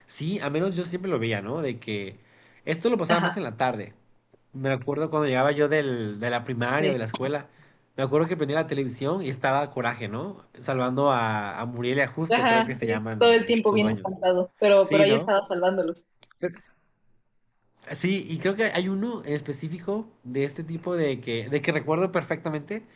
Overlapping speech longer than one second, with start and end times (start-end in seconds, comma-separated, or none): 12.3-14.1